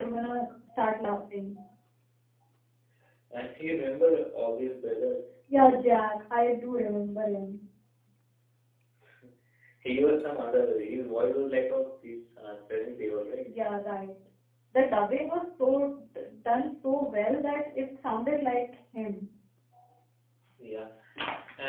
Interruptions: none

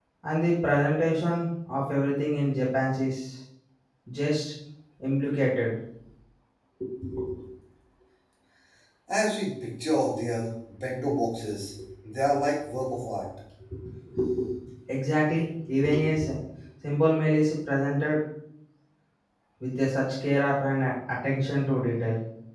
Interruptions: none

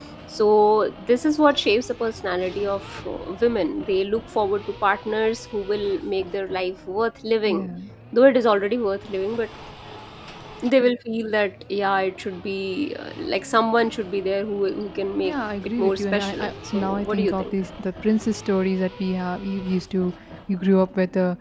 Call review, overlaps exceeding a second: present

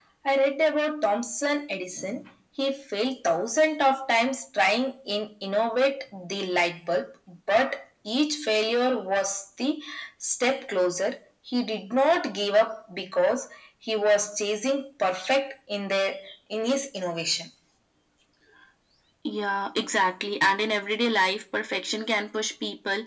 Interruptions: none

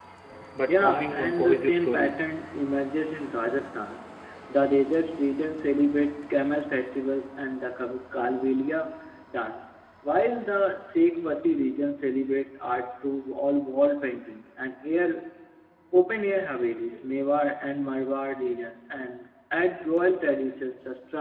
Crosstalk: present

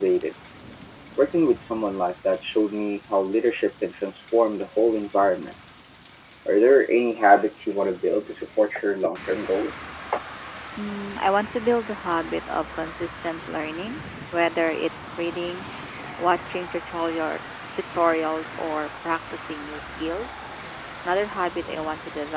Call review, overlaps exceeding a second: none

